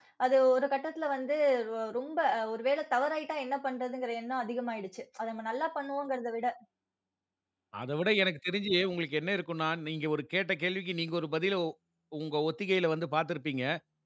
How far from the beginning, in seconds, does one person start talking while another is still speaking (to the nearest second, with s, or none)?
none